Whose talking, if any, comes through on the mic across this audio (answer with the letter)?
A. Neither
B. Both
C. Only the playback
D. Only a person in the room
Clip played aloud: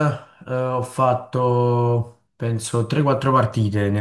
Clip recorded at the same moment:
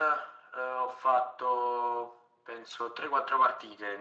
C